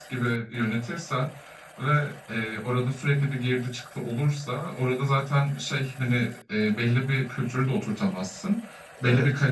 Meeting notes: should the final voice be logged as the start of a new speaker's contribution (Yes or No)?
No